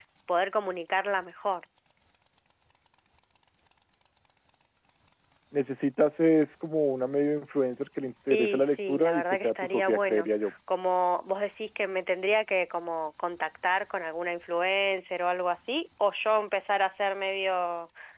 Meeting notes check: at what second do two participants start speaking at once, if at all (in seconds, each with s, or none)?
8.3 s